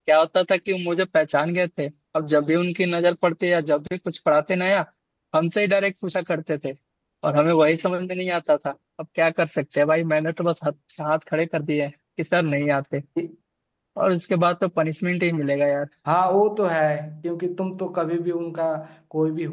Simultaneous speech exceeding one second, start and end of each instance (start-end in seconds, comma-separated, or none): none